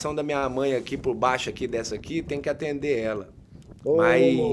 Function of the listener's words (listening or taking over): listening